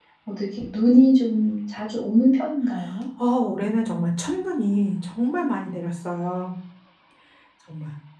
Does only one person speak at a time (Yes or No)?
Yes